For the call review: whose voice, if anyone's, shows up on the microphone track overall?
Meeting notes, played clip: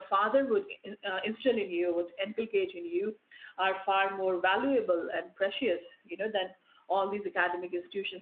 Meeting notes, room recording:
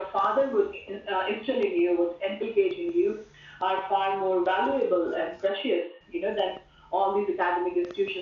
echo only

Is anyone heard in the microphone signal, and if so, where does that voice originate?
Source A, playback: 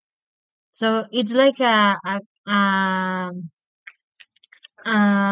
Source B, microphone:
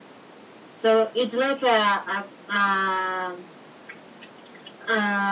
echo only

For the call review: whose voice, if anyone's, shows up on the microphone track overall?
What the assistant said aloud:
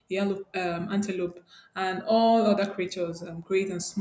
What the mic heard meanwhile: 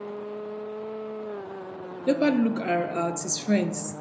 user only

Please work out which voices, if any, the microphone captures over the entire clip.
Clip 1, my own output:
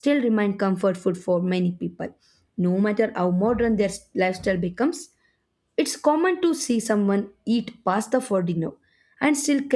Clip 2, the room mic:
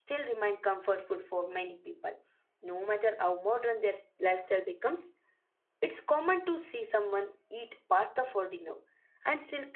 echo only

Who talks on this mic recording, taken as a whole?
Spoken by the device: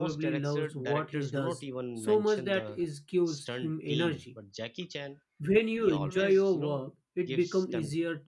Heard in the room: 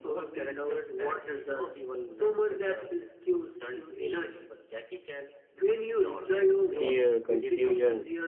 both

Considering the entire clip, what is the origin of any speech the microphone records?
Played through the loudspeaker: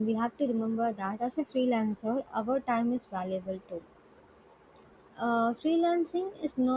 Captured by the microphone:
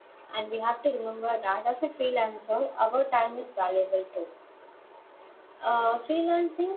echo only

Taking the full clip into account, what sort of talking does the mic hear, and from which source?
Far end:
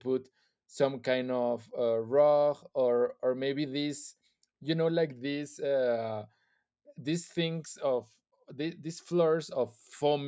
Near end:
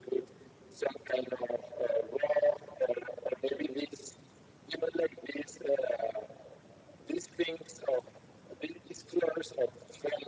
echo only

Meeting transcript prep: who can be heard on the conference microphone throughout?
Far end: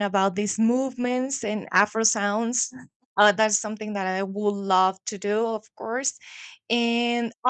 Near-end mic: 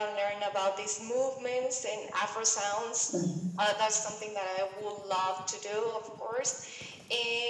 both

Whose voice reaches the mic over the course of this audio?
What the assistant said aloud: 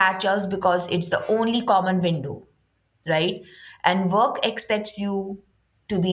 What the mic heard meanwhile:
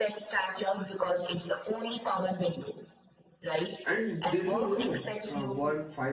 both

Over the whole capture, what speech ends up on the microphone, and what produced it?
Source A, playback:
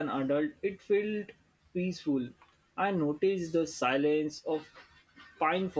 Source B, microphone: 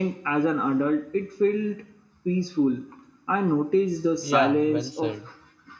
both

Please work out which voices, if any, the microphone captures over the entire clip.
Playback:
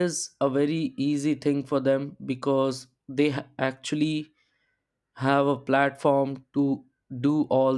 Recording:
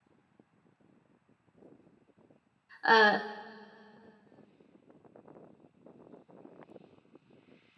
user only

